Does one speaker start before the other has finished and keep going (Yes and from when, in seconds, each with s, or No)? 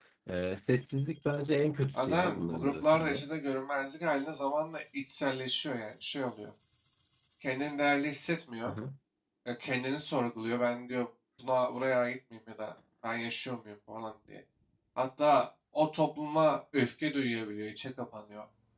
Yes, from 1.9 s